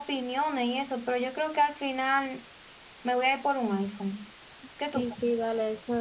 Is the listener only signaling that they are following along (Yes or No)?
No